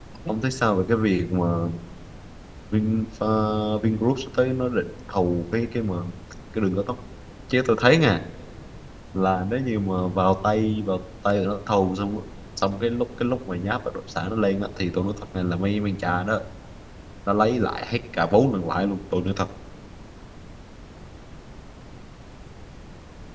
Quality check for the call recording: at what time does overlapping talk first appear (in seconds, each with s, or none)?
none